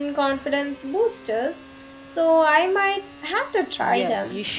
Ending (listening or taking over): taking over